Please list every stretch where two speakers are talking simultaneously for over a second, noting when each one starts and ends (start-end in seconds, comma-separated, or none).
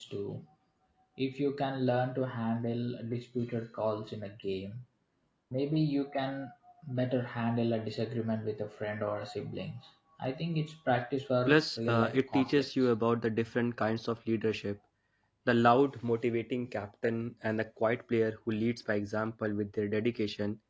11.5-12.7